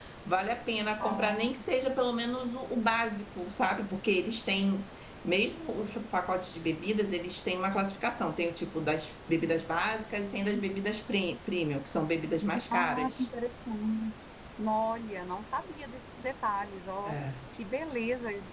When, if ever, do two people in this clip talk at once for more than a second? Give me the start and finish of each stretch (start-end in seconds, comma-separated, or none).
none